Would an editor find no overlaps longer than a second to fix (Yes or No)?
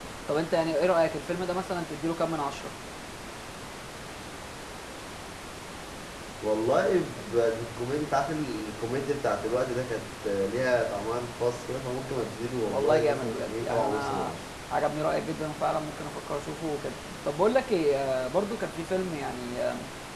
No